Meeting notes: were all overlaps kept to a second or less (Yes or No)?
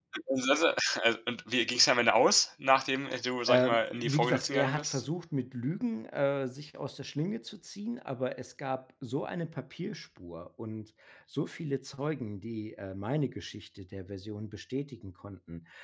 No